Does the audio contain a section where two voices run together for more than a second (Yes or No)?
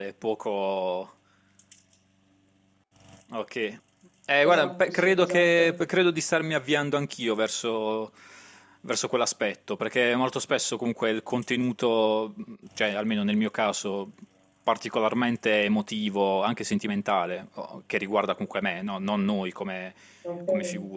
Yes